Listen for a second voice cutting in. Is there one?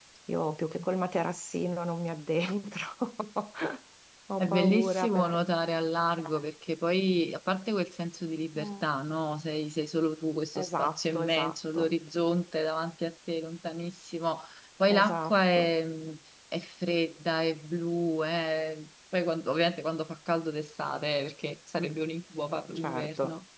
Yes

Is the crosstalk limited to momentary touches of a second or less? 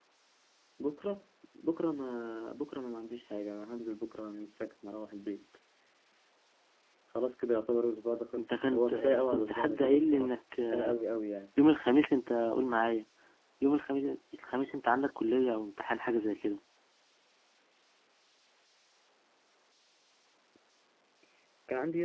No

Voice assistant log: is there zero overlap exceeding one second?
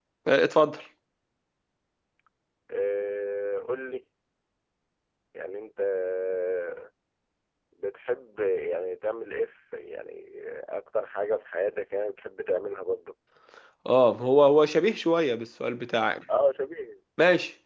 Yes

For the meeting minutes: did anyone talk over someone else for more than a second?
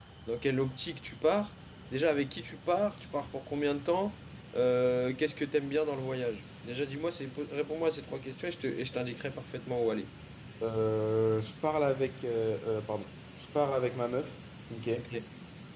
No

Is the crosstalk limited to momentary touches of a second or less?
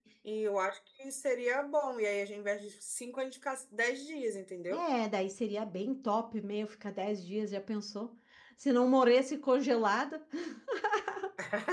Yes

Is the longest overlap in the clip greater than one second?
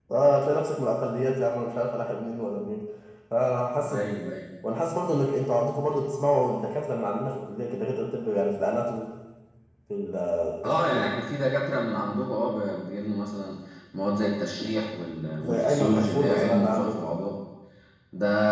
Yes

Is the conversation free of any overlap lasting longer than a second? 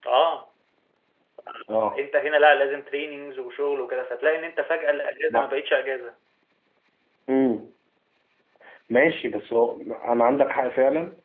Yes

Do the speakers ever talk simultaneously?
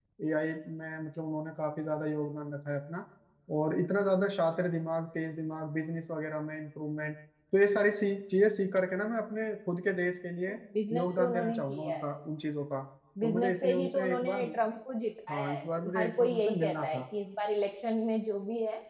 Yes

